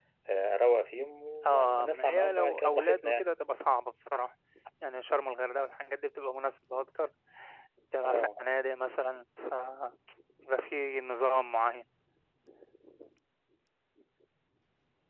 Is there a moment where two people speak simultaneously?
Yes, from 1.4 s

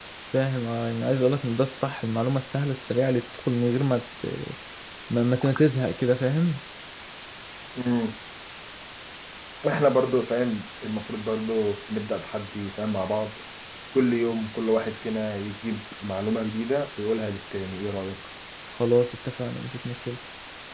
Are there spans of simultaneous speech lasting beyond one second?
No

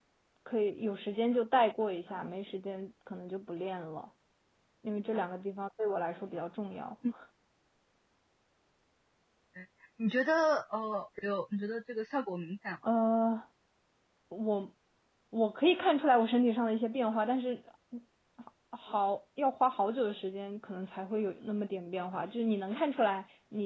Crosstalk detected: No

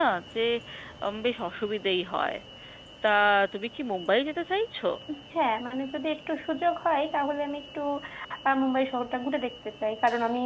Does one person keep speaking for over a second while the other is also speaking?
No

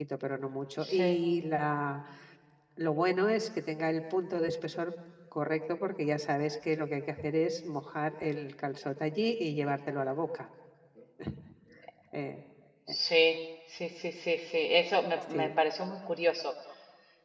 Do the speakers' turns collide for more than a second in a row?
No

